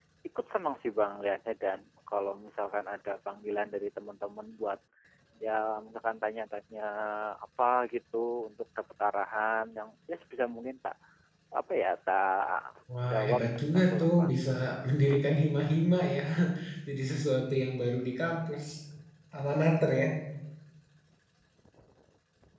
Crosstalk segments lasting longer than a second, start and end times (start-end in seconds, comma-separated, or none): 13.0-14.3